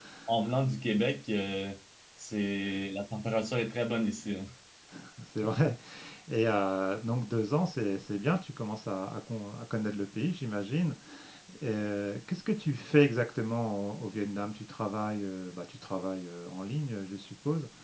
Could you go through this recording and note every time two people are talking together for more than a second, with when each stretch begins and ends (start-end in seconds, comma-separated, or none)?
none